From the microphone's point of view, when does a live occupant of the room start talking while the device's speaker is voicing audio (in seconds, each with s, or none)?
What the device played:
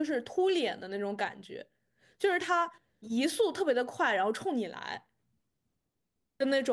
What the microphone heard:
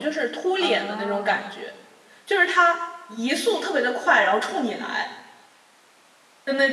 0.5 s